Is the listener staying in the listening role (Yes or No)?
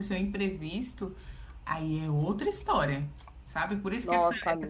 Yes